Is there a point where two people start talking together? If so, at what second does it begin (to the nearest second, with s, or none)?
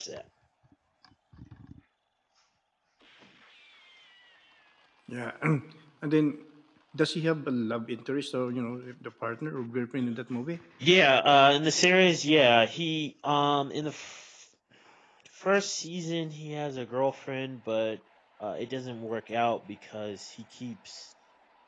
none